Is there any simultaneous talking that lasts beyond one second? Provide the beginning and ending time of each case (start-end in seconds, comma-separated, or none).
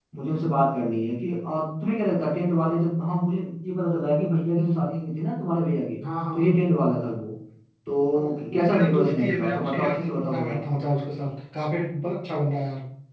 8.1-10.6